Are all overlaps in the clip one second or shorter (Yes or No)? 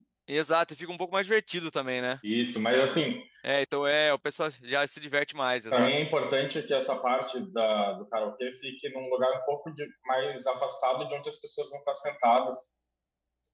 Yes